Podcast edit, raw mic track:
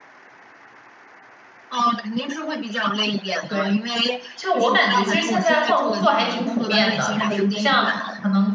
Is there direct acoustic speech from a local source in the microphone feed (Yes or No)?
Yes